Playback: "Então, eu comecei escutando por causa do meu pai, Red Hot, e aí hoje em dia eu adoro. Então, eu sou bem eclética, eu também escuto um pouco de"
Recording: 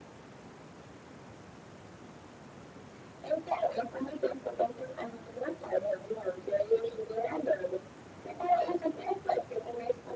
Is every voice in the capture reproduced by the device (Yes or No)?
Yes